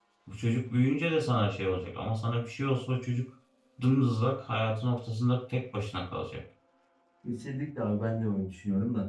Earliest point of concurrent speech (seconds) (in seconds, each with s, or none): none